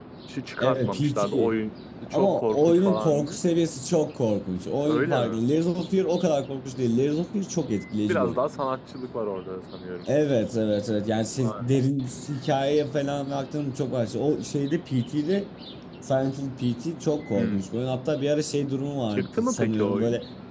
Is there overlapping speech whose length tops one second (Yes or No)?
Yes